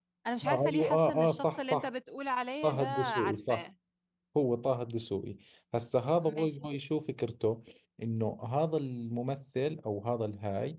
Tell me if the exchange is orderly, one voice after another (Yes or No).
No